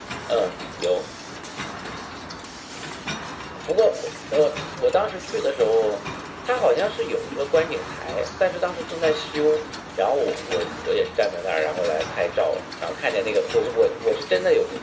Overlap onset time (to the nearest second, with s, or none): none